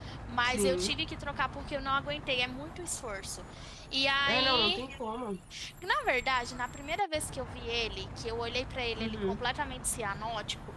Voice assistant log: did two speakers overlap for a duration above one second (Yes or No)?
No